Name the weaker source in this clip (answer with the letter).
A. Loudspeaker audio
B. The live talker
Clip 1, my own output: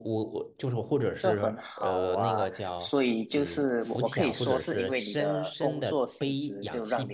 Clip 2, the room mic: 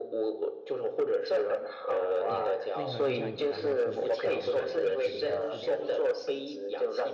B